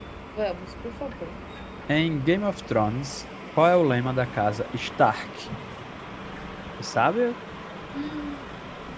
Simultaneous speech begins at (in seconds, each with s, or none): none